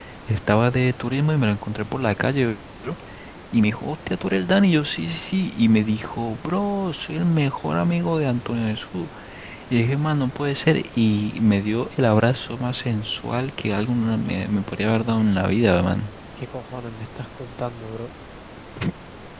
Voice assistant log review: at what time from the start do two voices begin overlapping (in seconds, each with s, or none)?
none